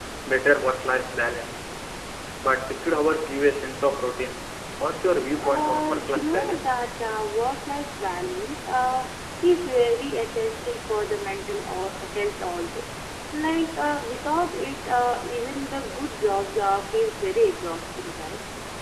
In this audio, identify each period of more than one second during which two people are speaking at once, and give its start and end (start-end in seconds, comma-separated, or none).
5.4-6.7